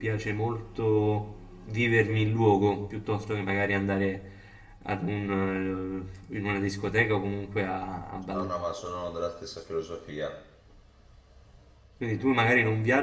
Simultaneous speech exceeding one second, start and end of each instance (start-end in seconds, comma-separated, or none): none